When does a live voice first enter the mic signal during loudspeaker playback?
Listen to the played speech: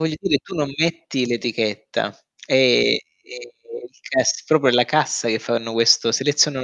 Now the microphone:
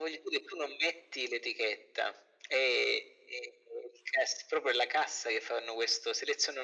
none

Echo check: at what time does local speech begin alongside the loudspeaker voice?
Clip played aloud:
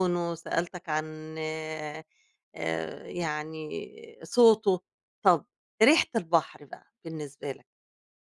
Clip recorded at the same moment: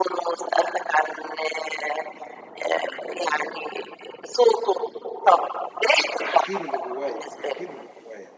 6.2 s

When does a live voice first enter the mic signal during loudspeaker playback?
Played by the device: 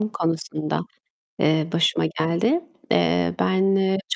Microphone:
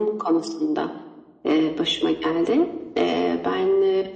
none

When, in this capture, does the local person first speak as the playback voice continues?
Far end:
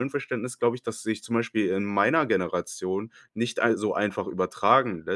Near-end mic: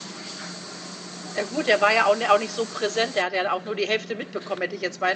1.4 s

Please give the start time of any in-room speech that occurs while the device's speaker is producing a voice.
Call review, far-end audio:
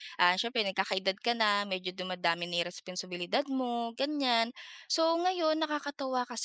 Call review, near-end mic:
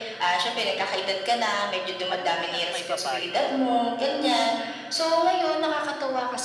2.1 s

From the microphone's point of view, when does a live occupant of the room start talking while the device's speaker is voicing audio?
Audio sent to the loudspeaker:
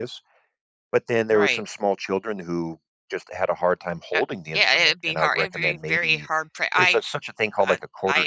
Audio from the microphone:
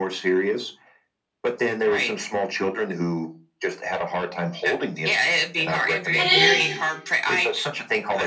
6.2 s

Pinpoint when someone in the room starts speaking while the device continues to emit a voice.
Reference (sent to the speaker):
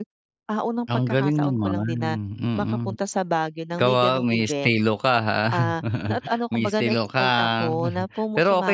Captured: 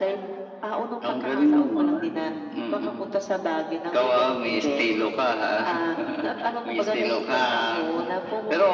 none

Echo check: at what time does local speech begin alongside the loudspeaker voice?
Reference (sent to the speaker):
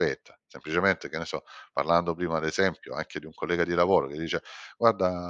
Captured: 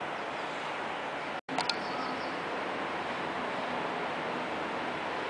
none

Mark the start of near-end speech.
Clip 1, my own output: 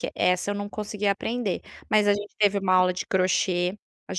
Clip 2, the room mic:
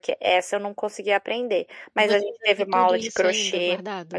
1.9 s

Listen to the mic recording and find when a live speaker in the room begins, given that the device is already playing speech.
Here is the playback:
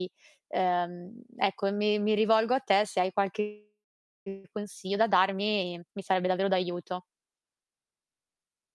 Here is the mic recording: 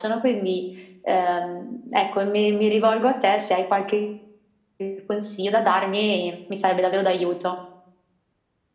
none

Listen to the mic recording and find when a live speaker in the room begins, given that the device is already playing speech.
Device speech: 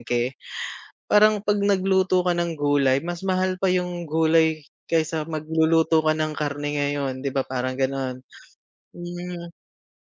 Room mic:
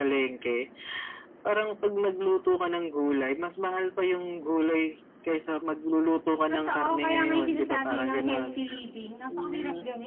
6.5 s

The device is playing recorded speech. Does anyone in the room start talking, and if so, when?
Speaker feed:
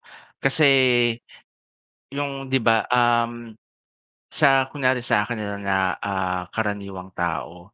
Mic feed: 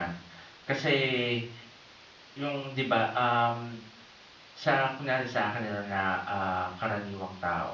none

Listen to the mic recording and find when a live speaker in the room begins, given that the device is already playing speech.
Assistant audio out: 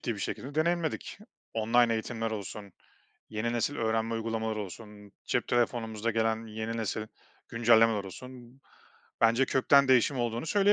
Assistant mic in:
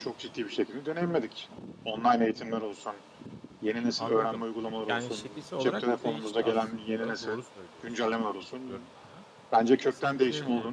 4.0 s

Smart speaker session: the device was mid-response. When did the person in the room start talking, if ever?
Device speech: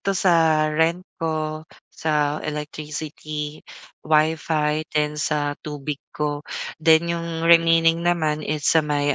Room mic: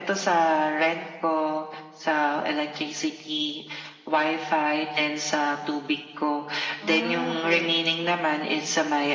6.8 s

